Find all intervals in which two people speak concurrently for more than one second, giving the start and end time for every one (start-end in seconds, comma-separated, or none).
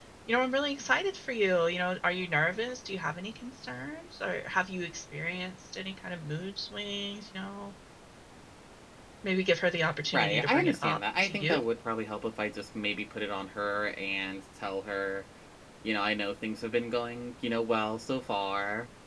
10.1-11.6